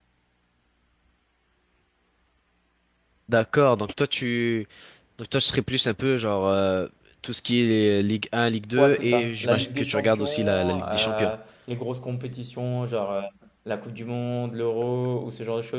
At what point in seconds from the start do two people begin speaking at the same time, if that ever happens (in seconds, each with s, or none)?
8.8 s